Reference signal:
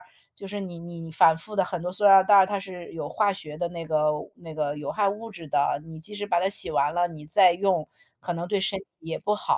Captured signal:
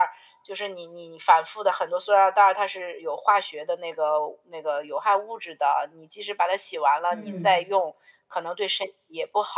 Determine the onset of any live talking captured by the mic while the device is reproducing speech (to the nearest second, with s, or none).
7 s